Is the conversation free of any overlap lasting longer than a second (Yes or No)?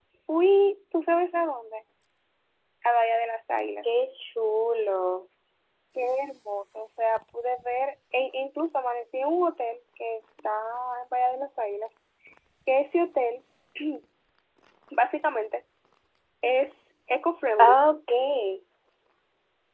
Yes